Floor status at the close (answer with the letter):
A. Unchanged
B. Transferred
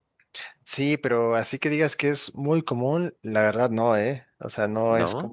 A